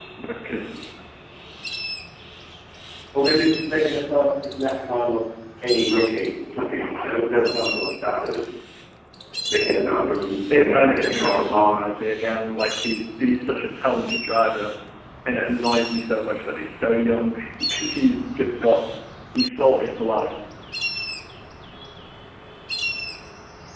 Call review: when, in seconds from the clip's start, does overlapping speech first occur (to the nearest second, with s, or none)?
11 s